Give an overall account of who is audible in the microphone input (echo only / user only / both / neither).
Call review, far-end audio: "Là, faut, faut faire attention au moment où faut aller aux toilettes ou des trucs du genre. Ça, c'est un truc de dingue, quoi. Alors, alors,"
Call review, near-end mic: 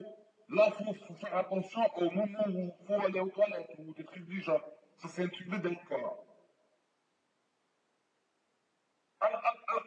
echo only